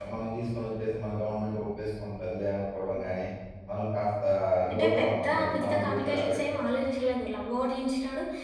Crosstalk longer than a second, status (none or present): present